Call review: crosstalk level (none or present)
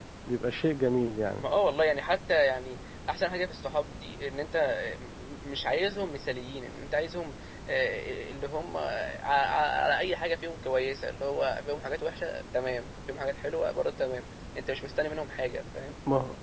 none